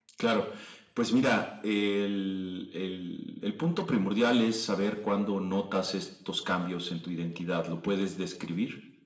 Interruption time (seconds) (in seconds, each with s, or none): none